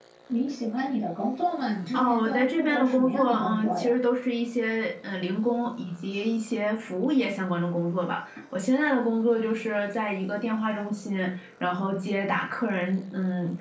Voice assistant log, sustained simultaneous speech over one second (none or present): present